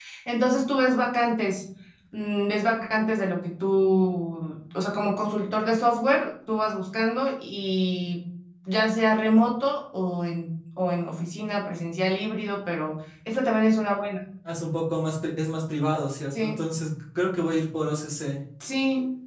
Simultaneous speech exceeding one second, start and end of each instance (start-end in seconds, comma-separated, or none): none